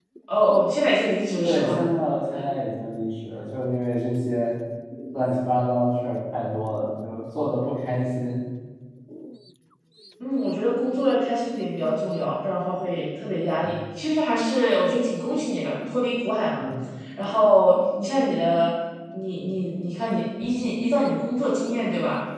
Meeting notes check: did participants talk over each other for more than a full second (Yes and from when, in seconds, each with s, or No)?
No